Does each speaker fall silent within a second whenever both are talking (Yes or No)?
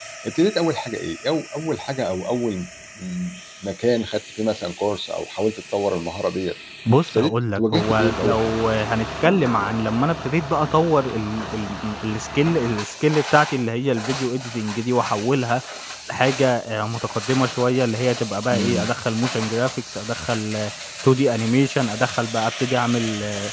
No